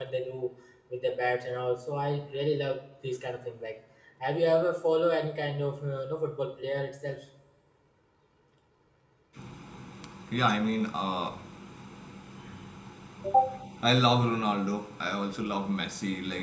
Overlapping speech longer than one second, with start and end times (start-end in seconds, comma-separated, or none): none